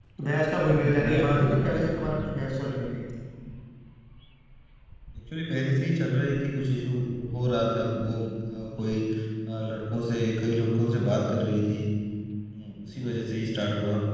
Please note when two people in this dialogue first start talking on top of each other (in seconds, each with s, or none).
0.8 s